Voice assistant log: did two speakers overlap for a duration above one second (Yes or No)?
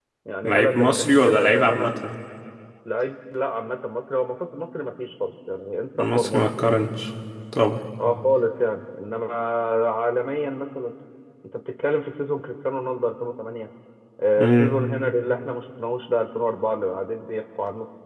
Yes